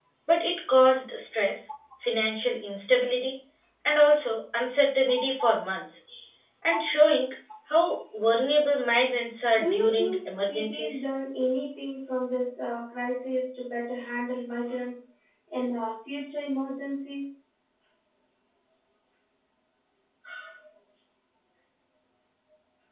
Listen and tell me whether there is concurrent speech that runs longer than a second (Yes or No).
Yes